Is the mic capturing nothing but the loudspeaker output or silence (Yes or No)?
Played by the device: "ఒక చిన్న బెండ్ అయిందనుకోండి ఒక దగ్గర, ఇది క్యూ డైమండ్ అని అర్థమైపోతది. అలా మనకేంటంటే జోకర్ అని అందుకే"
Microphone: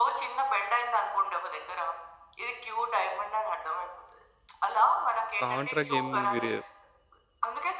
No